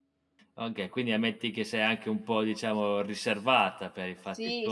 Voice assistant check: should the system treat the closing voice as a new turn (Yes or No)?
Yes